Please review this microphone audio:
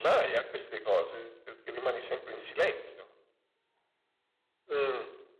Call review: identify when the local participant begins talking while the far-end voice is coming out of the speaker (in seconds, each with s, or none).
none